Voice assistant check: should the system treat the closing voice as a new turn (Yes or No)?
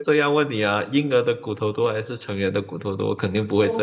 Yes